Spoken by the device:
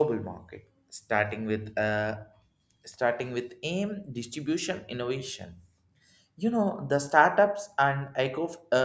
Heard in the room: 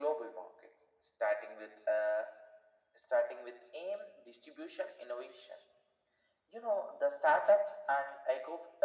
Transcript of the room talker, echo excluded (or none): none